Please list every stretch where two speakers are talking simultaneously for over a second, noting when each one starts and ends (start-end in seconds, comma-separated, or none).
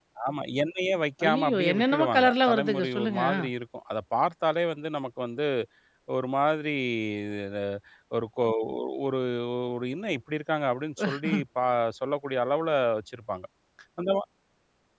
1.3-3.2